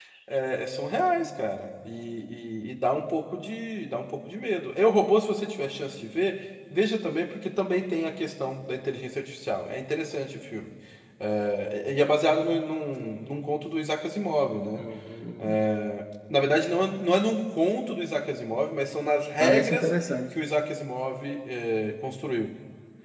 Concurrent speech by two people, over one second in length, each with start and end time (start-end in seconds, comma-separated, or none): none